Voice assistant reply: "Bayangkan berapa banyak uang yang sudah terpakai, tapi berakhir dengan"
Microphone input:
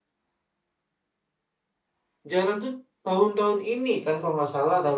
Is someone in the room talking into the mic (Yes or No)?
Yes